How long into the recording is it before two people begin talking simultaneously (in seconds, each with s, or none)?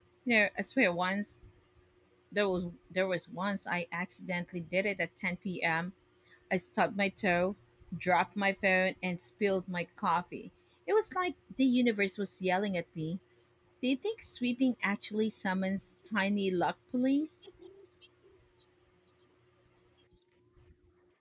none